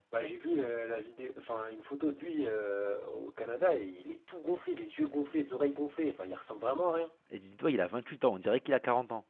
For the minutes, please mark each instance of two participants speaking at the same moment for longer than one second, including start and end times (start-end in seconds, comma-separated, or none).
none